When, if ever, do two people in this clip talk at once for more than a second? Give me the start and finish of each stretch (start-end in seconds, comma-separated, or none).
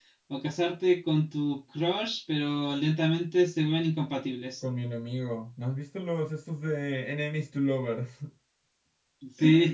none